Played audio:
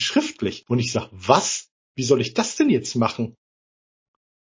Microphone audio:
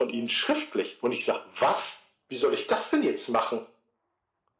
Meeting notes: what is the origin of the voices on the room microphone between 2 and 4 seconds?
echo only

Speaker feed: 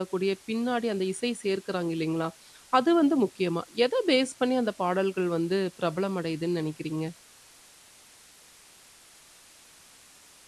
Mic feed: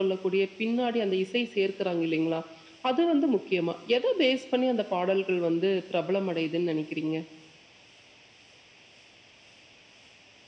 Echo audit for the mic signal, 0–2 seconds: echo only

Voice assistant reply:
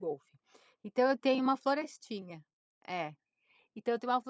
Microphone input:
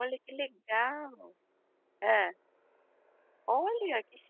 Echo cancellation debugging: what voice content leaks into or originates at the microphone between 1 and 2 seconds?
user only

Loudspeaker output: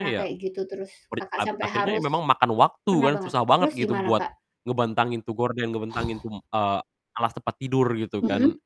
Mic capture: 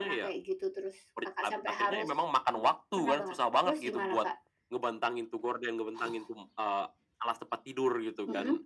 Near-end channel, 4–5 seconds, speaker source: echo only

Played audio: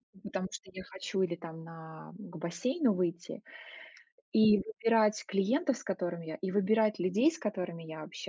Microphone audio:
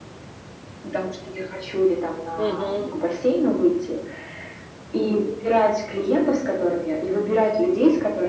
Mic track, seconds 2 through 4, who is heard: both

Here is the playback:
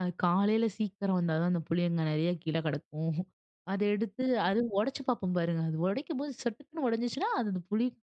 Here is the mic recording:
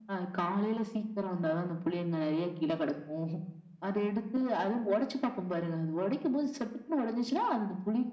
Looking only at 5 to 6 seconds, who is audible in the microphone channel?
echo only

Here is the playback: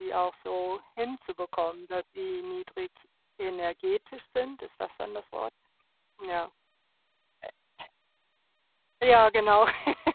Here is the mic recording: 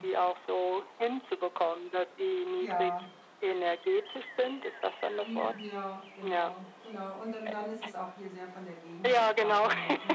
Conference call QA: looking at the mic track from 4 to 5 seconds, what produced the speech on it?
echo only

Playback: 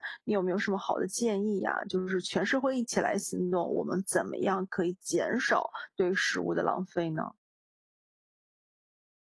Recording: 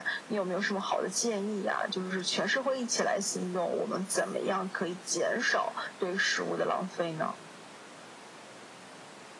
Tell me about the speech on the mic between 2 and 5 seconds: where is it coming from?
echo only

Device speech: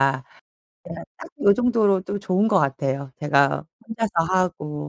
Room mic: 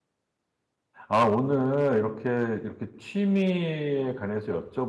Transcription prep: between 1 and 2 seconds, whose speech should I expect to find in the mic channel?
user only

